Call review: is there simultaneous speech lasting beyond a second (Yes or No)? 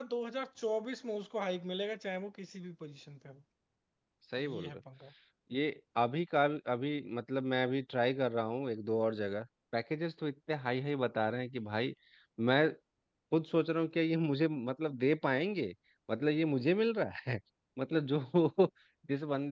No